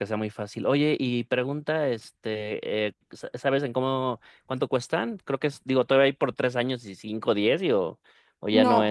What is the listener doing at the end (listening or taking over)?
taking over